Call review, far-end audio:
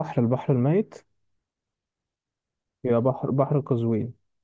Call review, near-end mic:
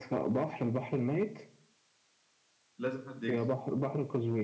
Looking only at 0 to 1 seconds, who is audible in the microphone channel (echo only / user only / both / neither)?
echo only